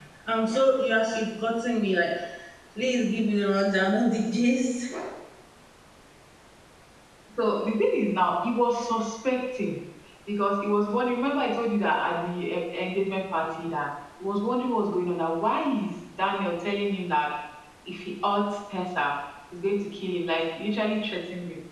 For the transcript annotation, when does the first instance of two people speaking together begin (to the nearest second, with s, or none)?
none